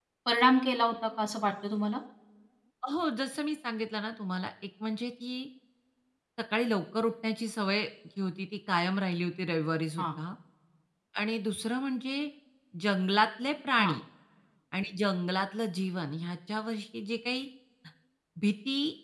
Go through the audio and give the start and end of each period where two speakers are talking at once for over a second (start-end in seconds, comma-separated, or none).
none